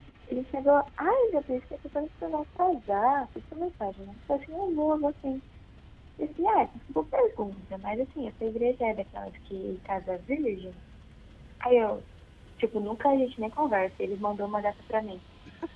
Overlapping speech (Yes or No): No